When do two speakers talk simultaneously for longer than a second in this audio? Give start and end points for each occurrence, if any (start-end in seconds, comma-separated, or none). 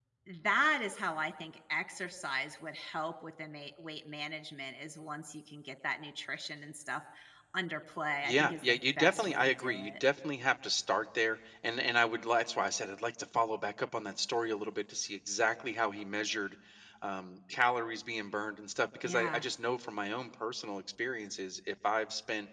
8.2-9.9